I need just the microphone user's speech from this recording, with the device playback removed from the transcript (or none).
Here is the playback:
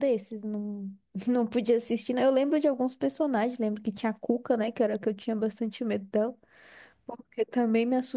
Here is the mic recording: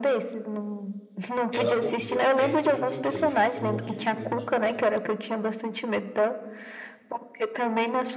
ela corria perto de uma igreja. Eu morria de medo disso, velho.